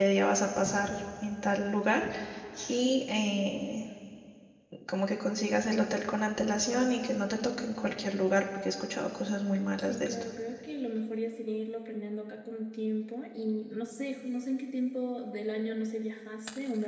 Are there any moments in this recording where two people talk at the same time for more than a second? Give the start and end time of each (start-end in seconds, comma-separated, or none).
none